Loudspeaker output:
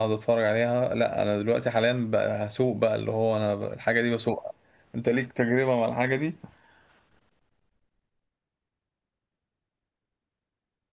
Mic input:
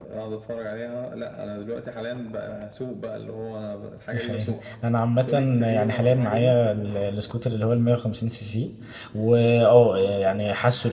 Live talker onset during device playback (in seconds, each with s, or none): 4.1 s